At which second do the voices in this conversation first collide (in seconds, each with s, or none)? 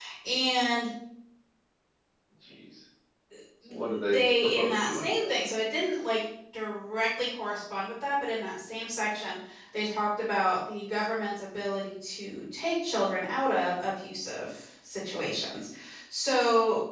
3.7 s